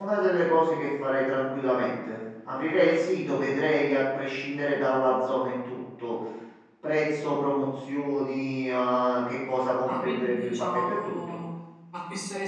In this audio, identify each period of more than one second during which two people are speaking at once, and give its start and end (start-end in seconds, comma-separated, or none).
9.9-11.4